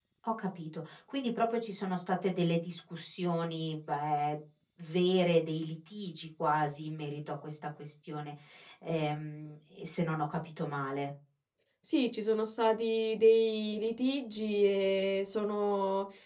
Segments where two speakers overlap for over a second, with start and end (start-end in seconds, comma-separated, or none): none